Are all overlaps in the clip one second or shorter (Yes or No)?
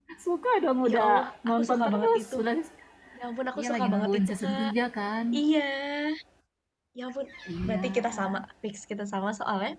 No